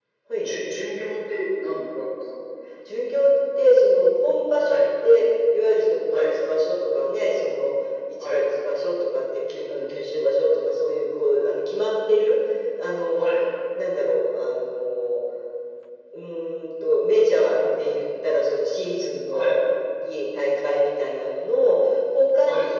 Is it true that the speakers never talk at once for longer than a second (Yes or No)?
Yes